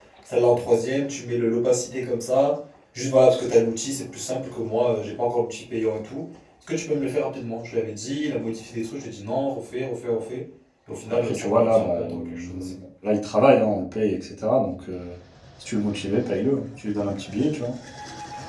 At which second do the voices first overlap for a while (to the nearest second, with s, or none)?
11 s